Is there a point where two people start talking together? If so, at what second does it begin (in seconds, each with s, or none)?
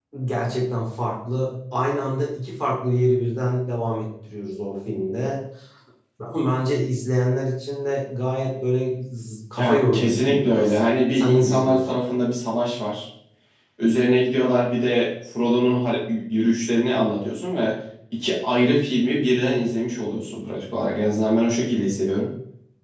9.6 s